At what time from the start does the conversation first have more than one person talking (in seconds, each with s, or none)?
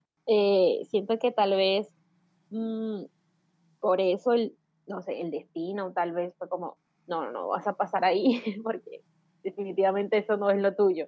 none